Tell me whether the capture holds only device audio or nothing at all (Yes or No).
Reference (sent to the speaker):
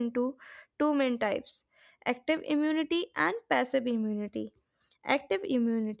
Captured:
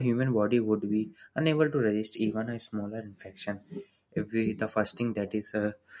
No